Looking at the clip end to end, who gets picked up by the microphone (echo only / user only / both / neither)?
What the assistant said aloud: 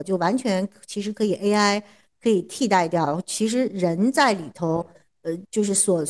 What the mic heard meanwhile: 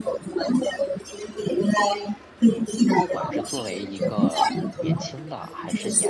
both